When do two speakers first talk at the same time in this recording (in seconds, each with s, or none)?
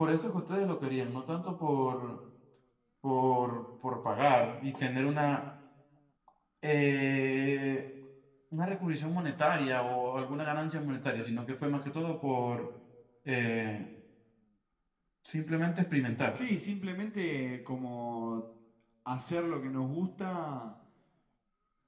none